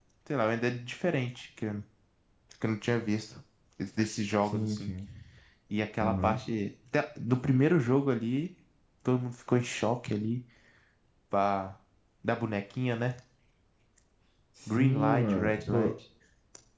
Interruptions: present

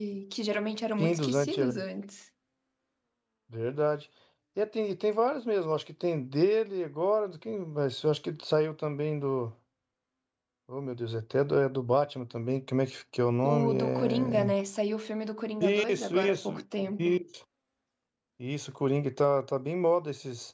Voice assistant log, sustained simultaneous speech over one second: present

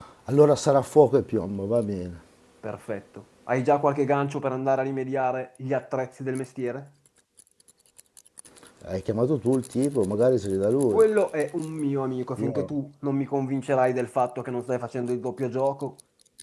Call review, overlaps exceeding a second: none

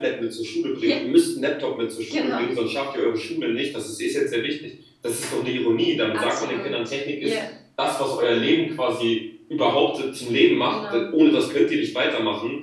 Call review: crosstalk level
present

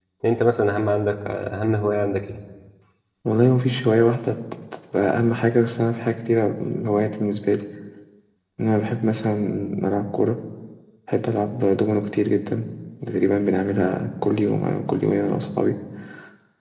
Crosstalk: none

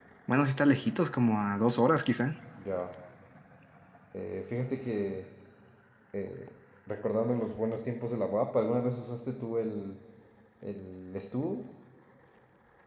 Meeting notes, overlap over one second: none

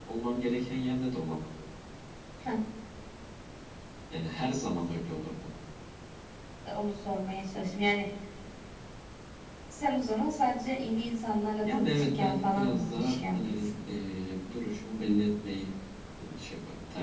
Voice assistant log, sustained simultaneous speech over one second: present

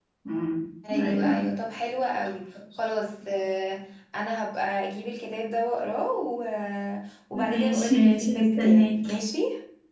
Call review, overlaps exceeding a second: present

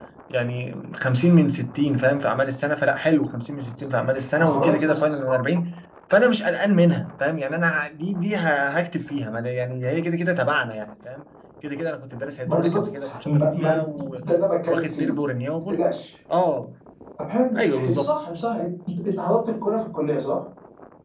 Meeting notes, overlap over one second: present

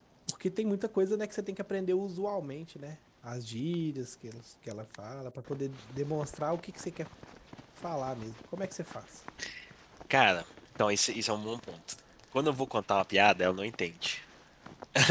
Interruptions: none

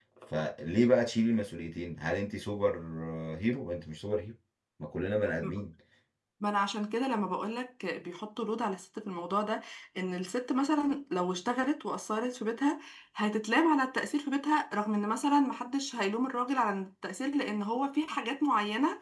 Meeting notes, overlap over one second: none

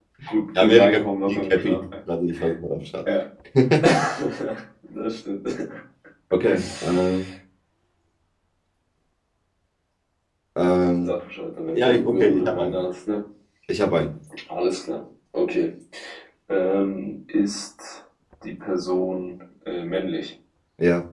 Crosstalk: present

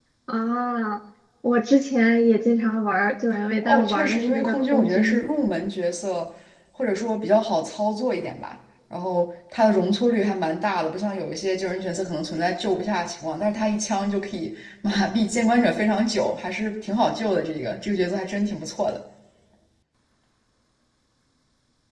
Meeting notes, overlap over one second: present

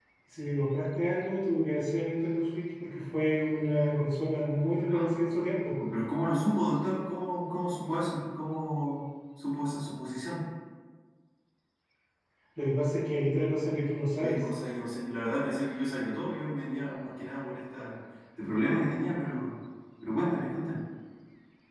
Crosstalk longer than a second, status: none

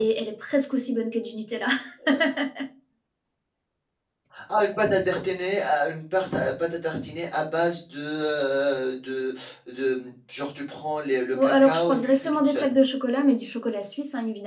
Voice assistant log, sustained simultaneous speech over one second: present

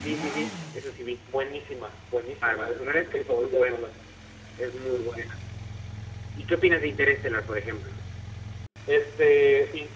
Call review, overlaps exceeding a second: present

